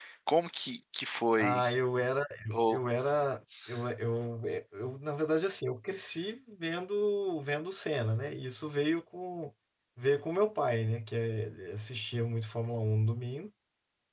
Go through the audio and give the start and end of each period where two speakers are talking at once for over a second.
none

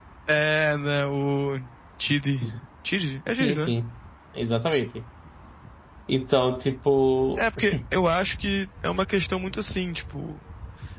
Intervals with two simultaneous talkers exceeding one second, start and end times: none

